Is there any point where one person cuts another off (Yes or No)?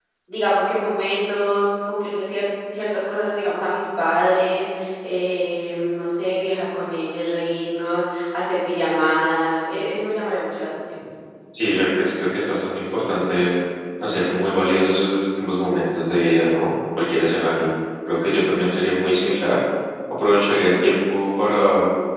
No